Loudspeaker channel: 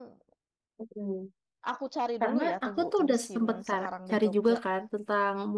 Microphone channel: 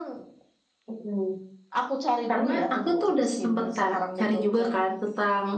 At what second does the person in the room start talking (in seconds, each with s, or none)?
none